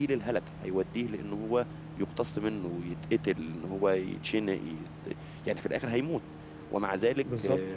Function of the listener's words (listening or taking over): listening